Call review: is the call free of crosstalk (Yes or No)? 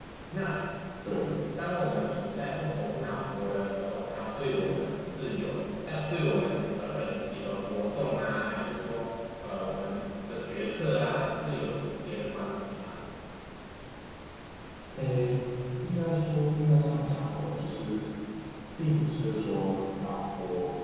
Yes